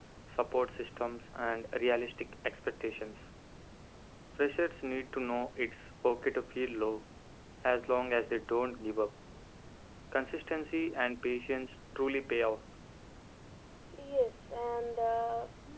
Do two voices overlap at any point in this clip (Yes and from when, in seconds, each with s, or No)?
No